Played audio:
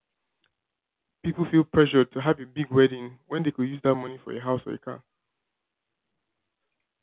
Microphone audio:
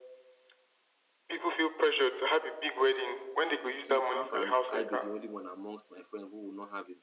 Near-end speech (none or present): present